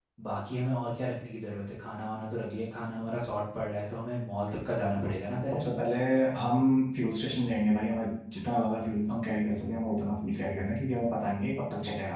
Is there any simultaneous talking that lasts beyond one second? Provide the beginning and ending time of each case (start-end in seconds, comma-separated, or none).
none